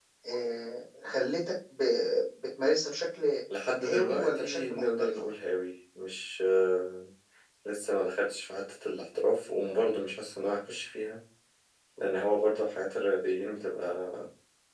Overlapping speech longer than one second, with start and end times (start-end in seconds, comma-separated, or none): 3.8-5.2